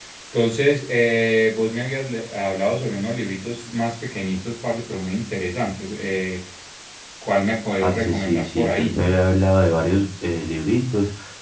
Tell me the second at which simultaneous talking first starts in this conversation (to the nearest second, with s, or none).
8 s